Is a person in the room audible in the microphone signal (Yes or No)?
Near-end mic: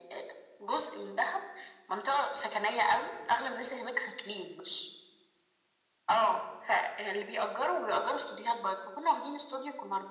No